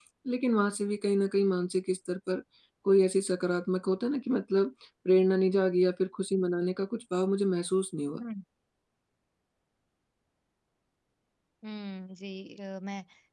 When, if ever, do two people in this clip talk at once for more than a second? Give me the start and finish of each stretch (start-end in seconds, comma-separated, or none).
none